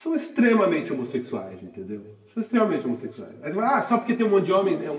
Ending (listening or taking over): listening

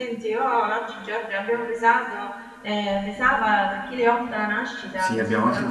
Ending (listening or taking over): taking over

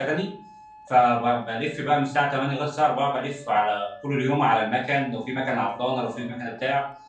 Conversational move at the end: listening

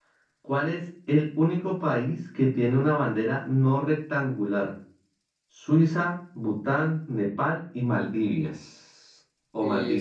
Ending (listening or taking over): taking over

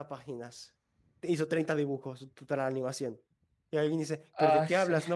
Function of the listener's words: listening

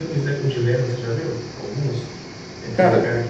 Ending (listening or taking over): listening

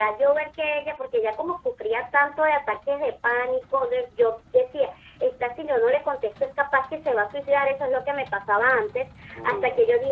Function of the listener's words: listening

